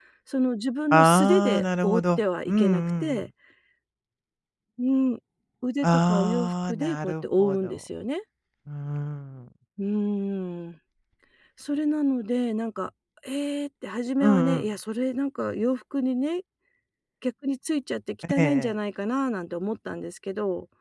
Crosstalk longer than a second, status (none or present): present